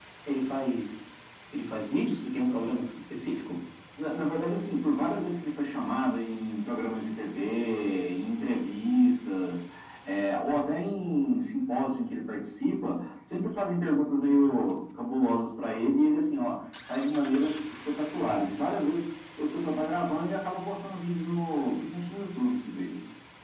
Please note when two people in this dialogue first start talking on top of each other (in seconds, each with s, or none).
none